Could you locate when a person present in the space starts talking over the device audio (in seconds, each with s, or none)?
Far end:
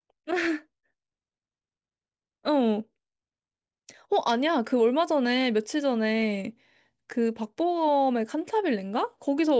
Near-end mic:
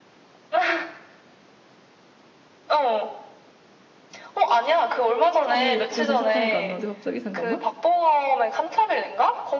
5.5 s